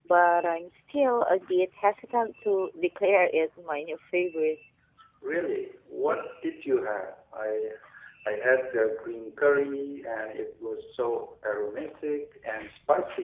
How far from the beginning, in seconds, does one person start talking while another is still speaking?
none

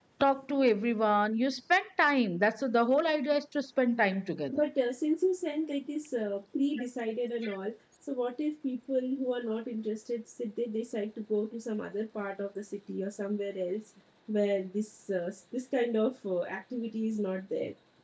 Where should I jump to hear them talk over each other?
none

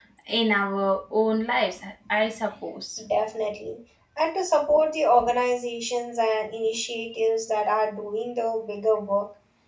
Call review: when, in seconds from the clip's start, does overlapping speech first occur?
none

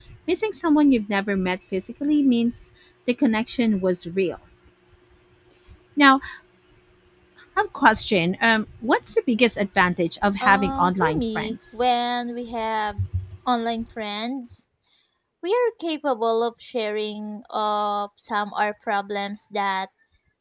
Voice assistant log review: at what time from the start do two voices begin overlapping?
10.4 s

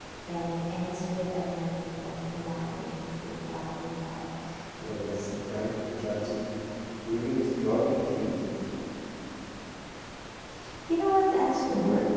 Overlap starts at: none

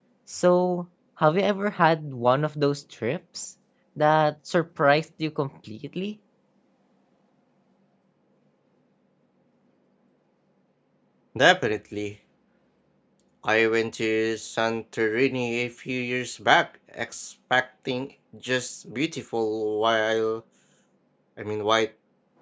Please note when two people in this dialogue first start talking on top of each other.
none

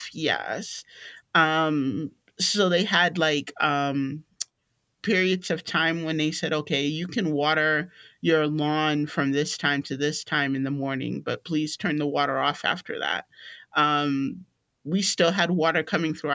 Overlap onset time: none

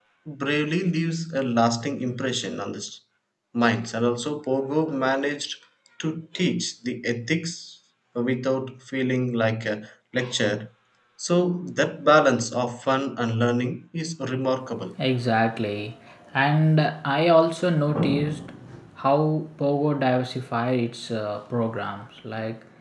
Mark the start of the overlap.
none

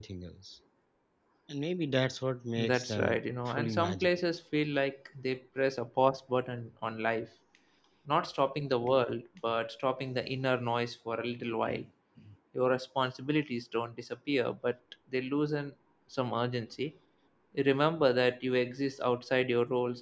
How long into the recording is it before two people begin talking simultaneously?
2.6 s

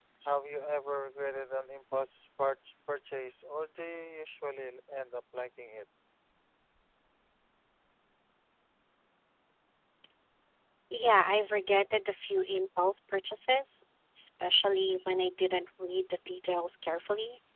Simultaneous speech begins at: none

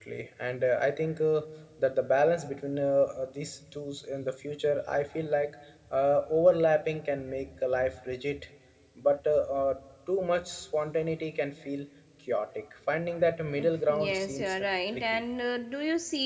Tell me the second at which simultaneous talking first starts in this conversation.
13.5 s

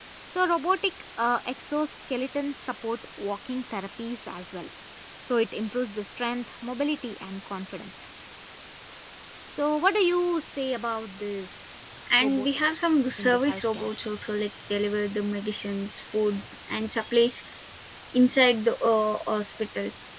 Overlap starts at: 12.1 s

